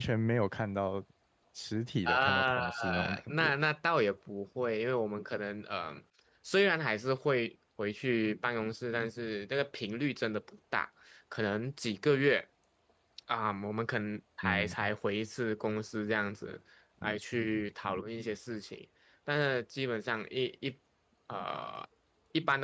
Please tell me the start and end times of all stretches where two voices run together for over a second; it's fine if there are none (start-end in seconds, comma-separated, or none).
2.0-3.5